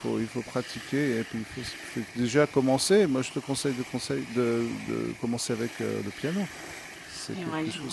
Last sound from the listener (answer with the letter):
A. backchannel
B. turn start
B